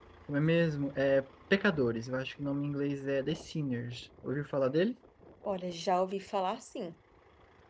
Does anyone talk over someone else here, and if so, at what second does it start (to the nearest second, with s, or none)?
none